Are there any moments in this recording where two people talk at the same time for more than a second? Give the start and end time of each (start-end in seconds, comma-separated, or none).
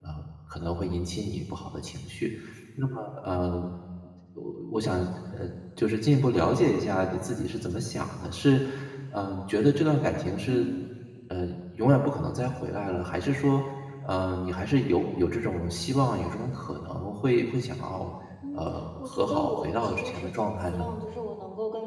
18.5-20.9